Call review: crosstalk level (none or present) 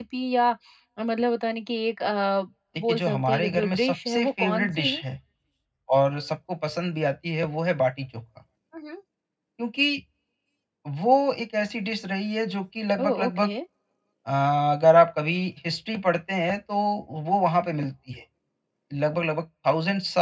present